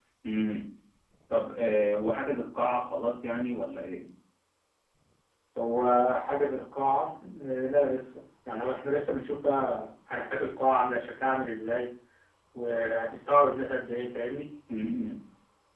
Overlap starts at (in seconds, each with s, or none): none